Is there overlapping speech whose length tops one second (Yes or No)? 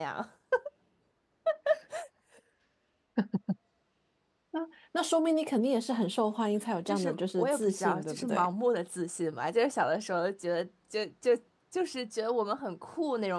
Yes